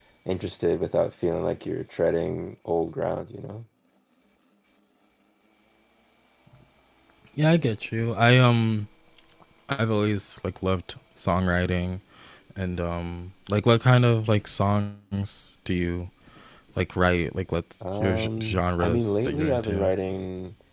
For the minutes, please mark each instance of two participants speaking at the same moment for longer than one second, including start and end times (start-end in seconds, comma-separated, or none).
17.8-19.9